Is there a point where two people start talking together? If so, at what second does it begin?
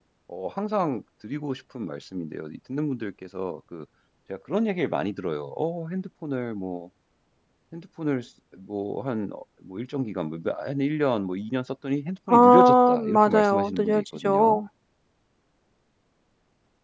12 s

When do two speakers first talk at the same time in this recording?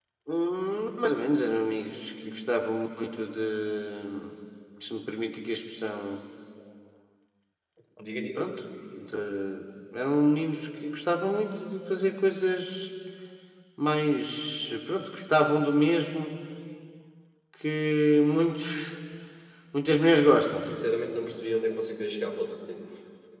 none

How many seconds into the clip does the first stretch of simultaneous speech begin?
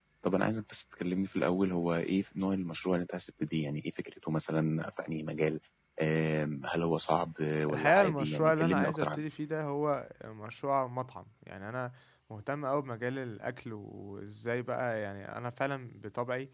8 s

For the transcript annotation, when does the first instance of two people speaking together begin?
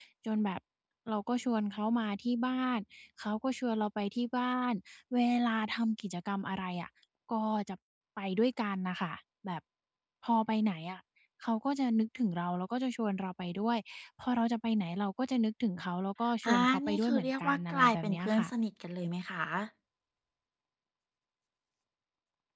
16 s

